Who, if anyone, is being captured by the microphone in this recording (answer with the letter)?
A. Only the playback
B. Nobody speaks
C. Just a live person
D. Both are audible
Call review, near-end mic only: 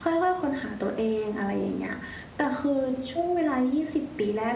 A